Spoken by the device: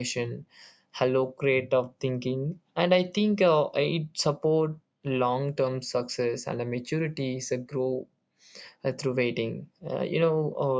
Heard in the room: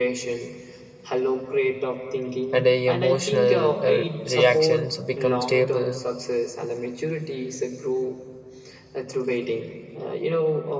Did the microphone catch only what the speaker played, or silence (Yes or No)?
No